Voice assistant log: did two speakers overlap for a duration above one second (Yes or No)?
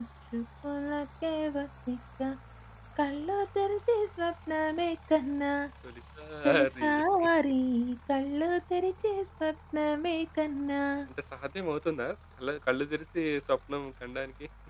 No